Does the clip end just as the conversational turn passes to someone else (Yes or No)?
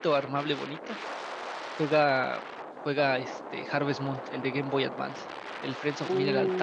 Yes